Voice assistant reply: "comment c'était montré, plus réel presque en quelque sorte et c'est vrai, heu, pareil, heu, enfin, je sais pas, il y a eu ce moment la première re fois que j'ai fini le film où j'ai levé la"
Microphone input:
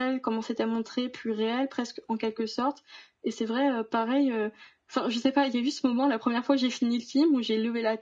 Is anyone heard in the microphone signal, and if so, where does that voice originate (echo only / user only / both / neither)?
echo only